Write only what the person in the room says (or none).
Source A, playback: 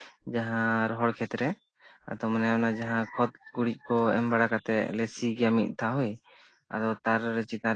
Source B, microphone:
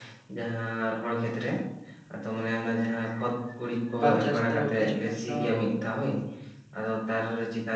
ᱵᱟᱨ ᱪᱟᱥᱛᱮ ᱠᱤᱪᱷᱩ ᱜᱟᱱ ᱫᱚ